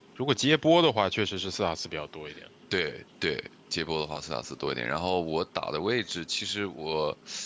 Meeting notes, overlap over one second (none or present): none